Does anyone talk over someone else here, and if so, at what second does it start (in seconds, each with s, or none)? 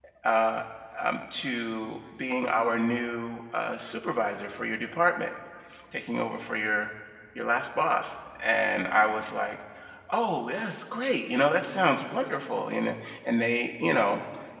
none